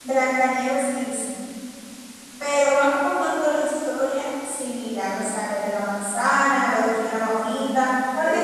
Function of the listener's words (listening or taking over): taking over